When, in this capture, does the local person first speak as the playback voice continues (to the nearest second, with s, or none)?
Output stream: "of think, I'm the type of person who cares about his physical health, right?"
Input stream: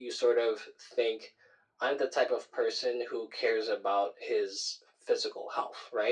none